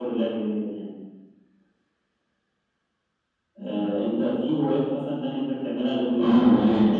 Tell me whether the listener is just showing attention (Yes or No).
No